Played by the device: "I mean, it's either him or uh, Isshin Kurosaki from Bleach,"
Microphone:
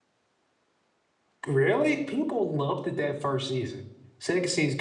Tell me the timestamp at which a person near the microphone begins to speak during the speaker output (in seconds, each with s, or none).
1.5 s